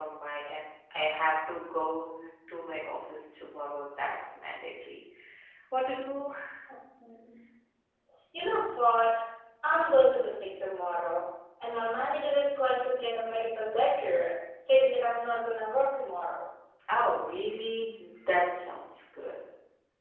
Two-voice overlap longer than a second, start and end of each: none

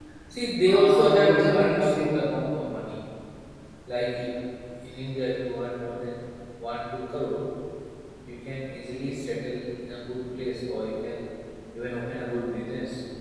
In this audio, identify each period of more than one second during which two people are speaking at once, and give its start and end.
0.7-2.2

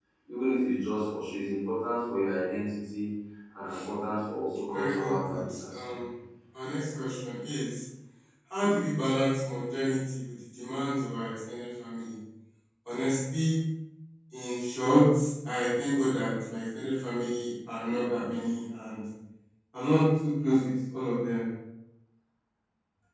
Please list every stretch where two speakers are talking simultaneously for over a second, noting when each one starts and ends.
4.7-6.0

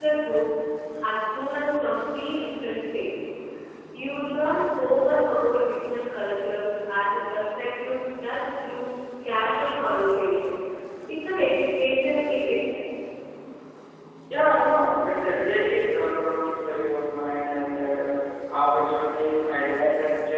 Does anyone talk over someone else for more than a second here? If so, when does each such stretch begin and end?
none

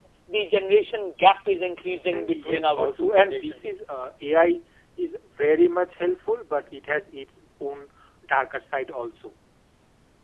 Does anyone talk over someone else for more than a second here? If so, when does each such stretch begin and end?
2.1-3.7

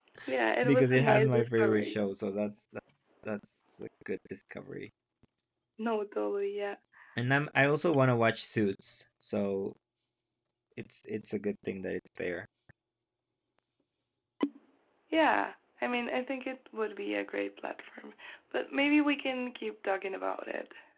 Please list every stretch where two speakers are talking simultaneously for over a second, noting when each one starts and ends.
0.6-2.0

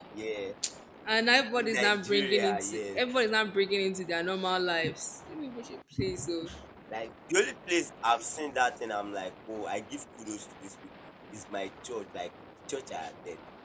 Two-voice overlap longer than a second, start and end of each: 1.6-3.0

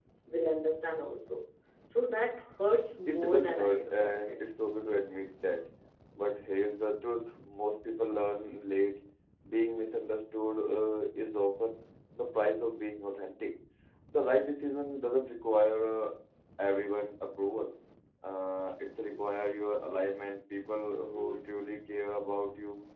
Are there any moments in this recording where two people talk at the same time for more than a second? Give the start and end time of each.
3.0-4.4

